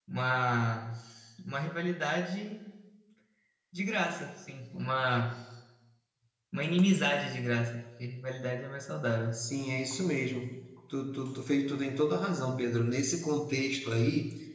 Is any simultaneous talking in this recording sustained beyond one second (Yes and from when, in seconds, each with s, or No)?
No